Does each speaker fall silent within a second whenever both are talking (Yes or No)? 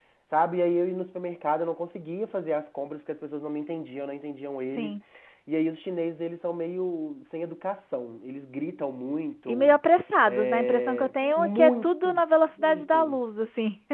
No